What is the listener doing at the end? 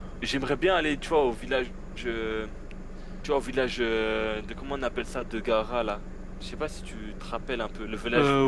taking over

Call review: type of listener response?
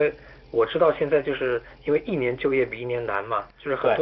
listening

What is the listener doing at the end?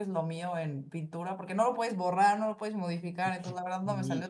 listening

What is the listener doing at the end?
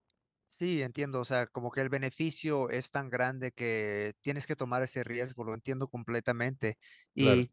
listening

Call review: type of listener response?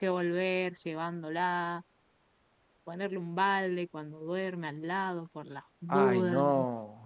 taking over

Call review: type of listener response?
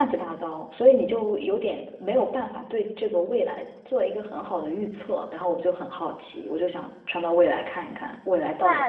taking over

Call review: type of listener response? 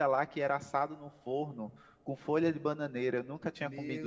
taking over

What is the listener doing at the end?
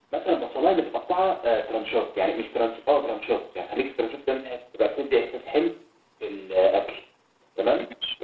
listening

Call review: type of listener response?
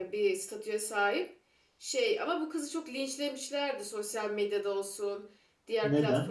listening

